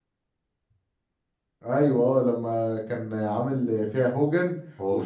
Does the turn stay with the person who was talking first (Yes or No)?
Yes